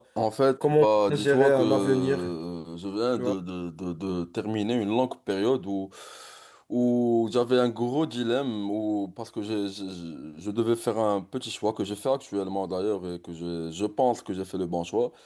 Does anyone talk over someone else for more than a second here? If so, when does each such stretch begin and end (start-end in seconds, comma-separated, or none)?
0.6-2.3